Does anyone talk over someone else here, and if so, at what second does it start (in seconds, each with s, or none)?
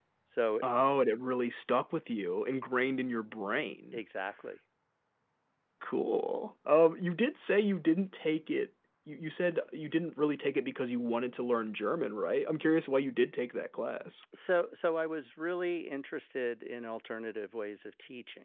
none